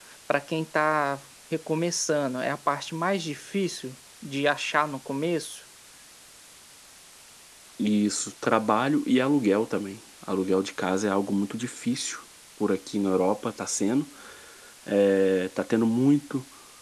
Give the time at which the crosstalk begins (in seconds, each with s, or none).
none